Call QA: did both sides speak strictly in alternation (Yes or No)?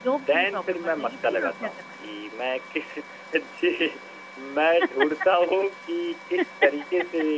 No